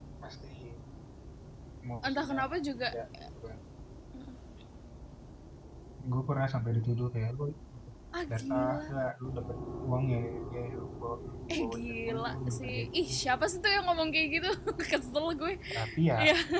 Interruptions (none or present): present